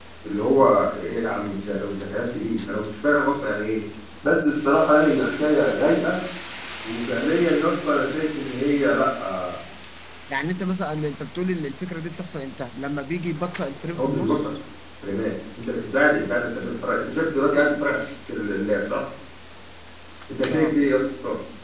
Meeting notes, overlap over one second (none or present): none